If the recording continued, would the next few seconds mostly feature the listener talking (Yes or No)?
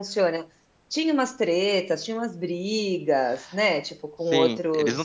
Yes